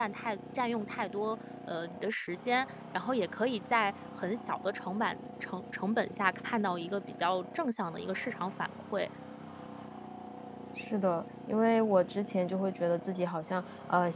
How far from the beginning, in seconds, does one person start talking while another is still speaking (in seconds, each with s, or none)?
none